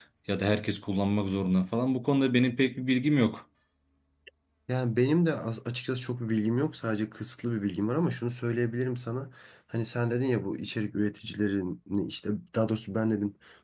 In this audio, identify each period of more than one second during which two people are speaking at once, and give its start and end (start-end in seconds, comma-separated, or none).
none